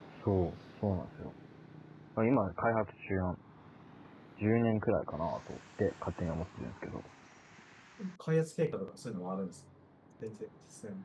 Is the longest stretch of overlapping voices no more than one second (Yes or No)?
Yes